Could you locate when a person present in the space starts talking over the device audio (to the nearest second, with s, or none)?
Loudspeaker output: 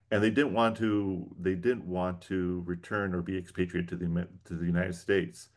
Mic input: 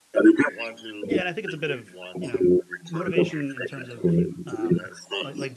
1 s